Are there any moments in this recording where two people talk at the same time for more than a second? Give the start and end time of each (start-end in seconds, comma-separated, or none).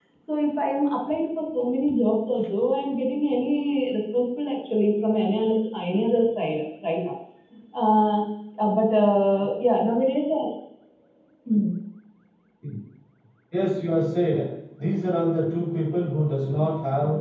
none